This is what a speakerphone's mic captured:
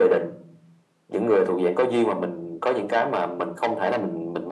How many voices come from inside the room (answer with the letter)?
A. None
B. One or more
A